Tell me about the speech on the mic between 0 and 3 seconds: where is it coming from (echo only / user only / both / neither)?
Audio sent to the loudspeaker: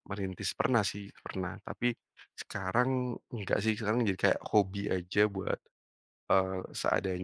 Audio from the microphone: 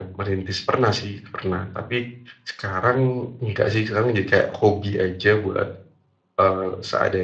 echo only